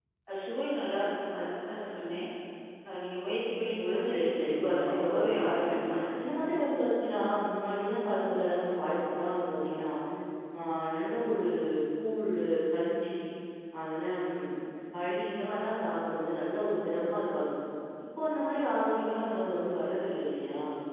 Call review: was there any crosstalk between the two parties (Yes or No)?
Yes